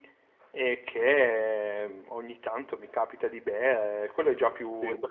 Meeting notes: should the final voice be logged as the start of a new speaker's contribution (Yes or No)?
No